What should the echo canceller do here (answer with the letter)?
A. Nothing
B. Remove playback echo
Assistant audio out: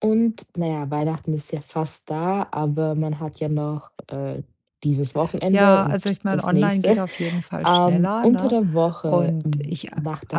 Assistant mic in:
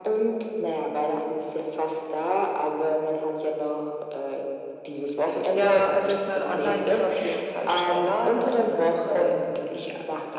B